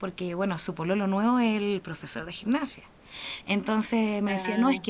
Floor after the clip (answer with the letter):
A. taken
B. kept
B